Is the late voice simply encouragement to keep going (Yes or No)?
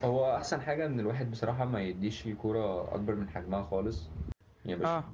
Yes